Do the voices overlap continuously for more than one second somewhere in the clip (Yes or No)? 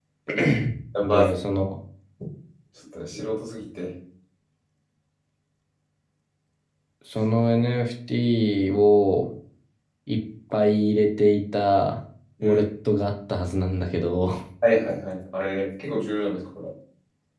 No